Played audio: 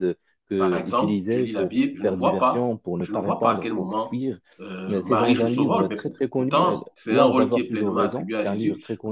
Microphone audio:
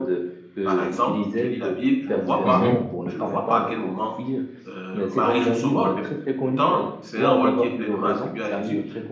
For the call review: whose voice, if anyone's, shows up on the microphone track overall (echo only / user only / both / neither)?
both